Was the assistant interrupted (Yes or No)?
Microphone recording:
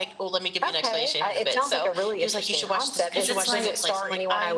Yes